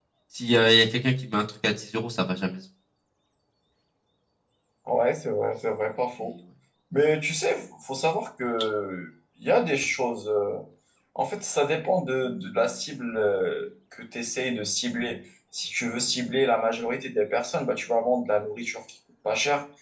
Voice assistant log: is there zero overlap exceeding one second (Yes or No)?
Yes